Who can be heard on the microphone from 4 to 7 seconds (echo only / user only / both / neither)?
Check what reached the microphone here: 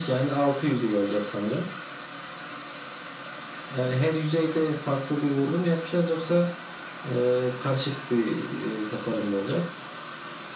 echo only